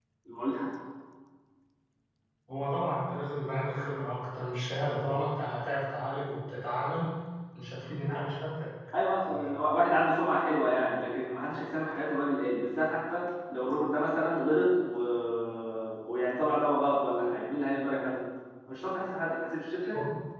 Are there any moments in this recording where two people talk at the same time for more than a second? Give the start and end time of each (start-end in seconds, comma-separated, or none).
none